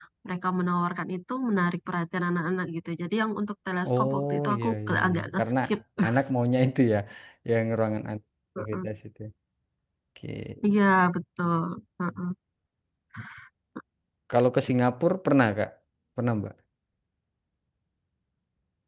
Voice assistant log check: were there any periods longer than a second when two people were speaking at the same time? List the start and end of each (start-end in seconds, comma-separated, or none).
3.9-5.4